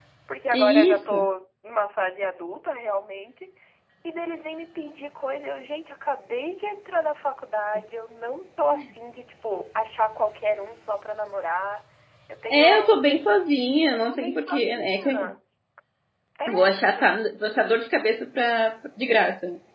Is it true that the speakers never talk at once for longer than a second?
No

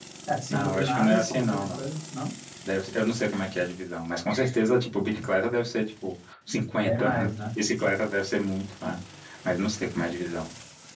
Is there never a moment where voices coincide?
No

